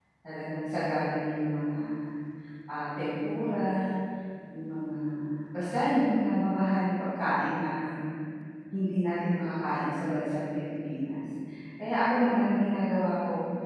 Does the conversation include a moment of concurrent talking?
No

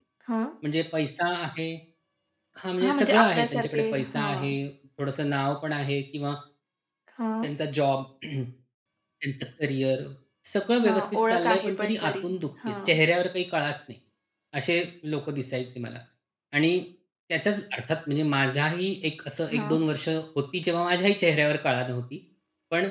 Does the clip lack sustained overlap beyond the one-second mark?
No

